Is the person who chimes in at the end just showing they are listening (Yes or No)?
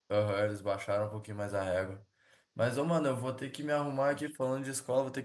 Yes